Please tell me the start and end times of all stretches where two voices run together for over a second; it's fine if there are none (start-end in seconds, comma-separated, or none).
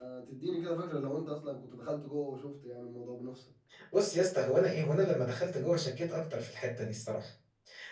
none